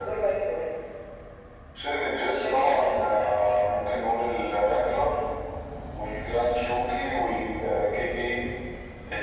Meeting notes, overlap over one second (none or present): present